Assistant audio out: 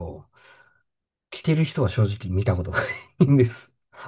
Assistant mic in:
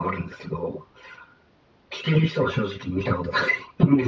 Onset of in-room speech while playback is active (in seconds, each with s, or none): none